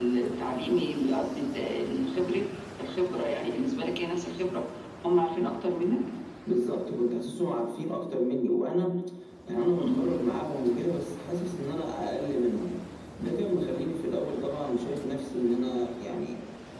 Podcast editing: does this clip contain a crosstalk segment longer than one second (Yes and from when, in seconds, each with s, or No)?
No